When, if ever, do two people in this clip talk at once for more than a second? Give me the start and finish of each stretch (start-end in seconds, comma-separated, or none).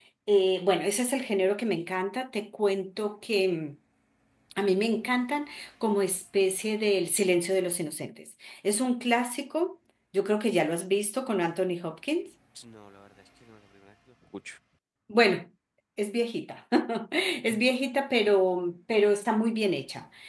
none